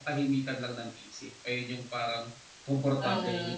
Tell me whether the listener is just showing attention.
No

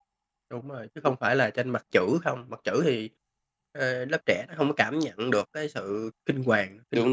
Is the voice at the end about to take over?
Yes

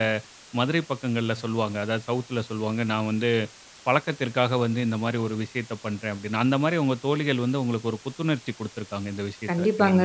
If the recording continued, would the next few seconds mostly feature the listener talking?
Yes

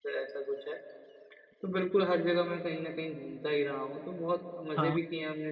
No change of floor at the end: Yes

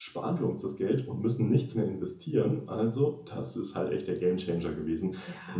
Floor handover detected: Yes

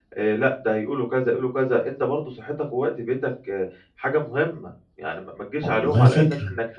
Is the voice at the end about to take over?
No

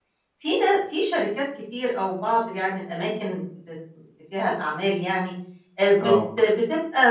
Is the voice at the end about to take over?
No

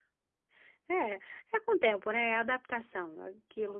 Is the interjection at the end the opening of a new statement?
No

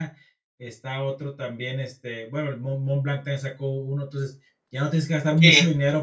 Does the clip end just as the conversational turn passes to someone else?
No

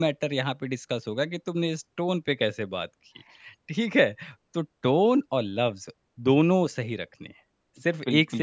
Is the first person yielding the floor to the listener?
Yes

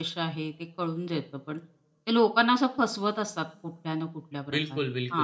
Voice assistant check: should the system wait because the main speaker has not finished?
No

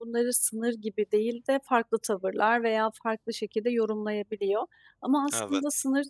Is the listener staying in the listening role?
Yes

